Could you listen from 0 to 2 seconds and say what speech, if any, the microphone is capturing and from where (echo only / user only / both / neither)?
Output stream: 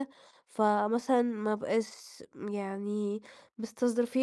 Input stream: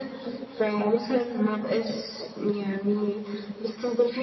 echo only